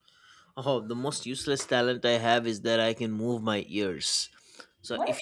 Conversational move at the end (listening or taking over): listening